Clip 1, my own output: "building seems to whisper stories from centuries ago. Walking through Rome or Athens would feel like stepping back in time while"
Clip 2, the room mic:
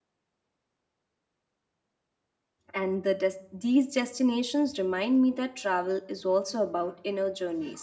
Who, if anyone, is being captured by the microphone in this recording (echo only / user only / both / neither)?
user only